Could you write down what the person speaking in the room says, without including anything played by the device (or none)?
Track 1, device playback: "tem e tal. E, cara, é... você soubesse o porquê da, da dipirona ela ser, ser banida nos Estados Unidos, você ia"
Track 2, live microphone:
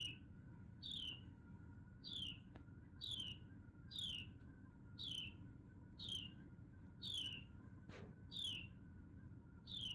none